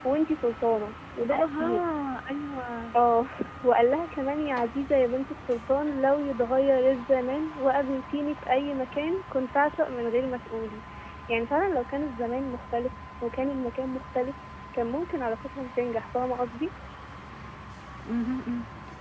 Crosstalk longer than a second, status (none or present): none